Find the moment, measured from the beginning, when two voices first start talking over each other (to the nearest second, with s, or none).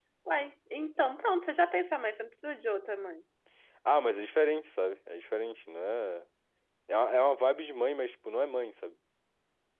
none